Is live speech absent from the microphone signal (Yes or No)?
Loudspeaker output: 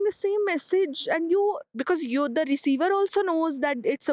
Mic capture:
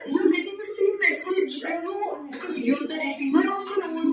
No